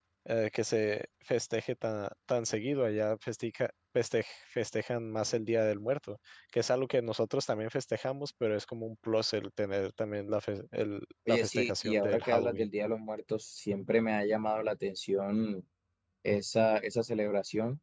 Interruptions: present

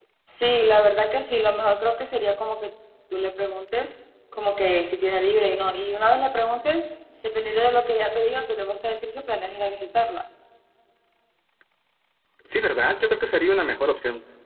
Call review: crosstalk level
none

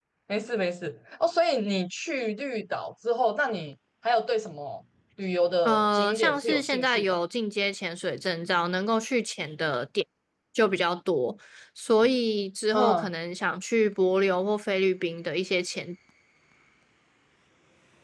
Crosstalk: present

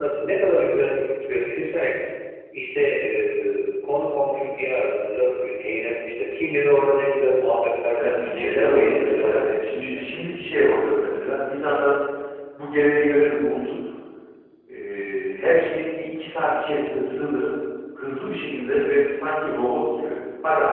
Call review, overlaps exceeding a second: present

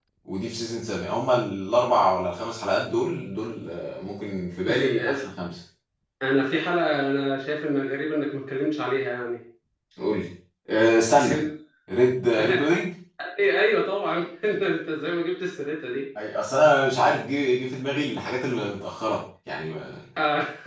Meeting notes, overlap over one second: none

